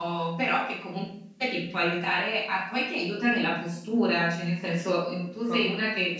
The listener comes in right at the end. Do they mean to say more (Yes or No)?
No